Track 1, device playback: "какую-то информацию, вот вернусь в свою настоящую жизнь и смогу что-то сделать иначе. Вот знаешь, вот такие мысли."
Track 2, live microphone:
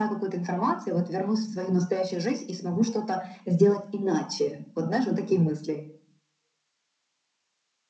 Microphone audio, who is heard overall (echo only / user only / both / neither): echo only